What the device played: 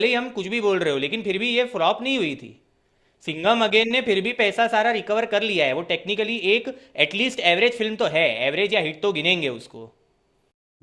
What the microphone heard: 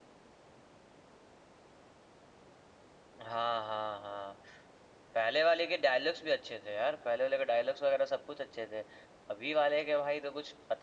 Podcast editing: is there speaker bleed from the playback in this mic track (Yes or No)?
No